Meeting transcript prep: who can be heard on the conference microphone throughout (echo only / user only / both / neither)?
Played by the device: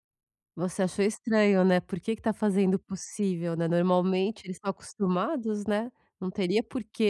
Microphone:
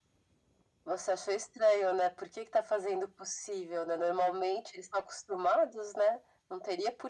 echo only